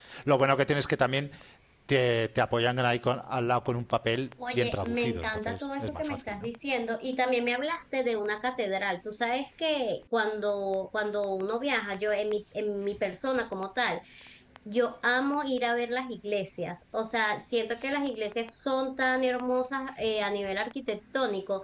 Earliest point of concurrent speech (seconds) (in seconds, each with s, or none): 4.4 s